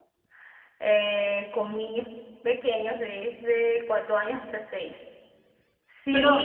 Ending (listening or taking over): listening